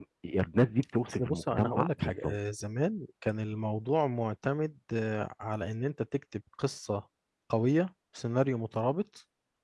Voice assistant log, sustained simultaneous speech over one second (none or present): present